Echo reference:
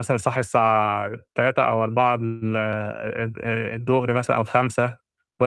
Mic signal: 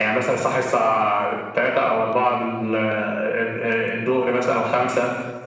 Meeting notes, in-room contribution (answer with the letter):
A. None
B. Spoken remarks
A